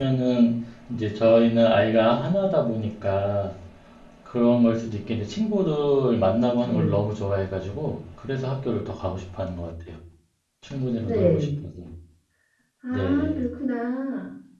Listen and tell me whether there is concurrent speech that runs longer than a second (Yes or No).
No